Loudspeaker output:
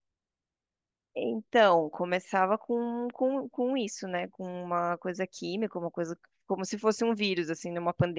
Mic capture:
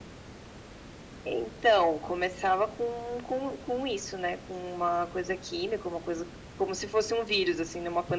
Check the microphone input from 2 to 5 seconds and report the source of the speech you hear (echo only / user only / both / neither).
echo only